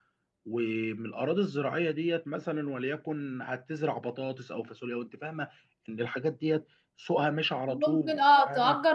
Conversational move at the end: taking over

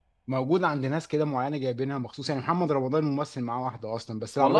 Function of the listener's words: listening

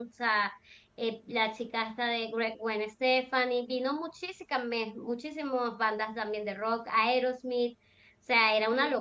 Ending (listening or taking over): listening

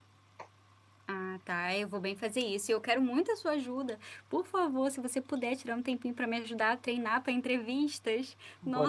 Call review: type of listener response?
taking over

